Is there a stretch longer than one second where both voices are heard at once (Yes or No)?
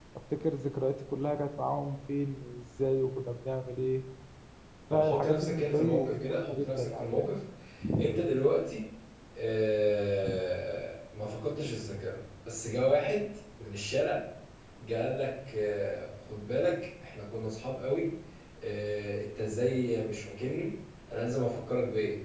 Yes